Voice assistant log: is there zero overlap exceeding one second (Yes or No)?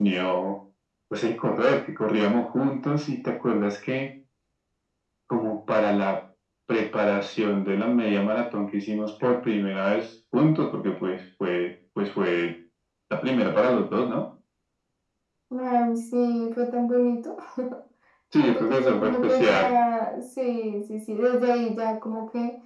No